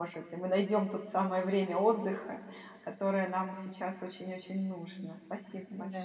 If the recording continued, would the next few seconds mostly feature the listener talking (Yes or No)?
Yes